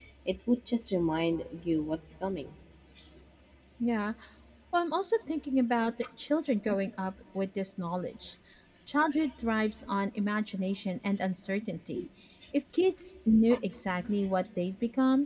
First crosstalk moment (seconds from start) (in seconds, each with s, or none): none